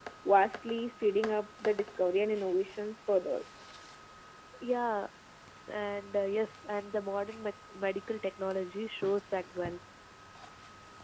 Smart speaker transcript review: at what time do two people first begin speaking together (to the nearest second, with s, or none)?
none